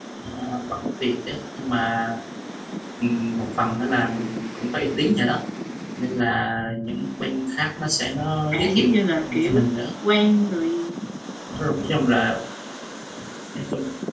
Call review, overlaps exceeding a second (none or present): present